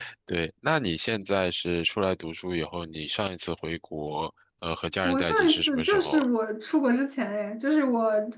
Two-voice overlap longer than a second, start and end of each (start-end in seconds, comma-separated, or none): 5.0-6.2